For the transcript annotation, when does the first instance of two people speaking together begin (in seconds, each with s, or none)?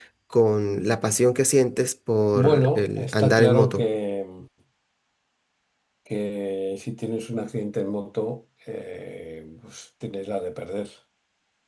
2.3 s